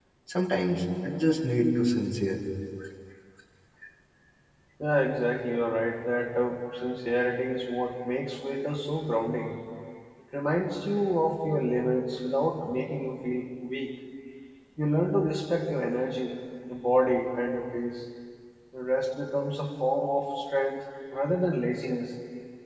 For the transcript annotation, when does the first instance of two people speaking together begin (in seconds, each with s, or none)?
none